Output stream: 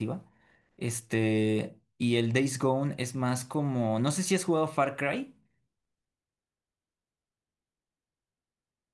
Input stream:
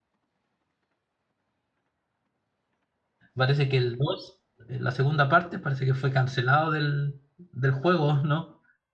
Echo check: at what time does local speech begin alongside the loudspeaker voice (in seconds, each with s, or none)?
3.4 s